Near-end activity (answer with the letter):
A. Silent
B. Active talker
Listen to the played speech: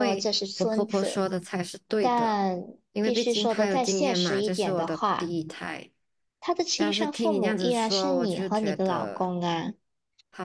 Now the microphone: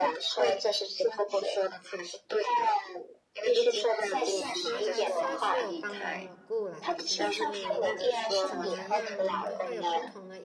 B